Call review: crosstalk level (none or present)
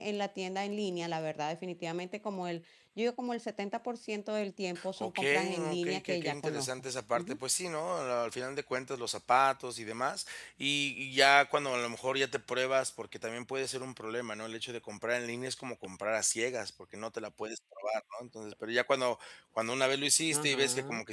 present